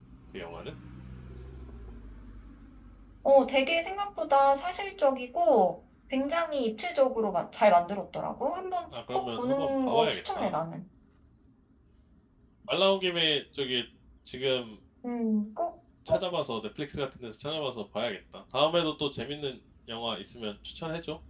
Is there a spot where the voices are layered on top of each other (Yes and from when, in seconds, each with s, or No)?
Yes, from 9.1 s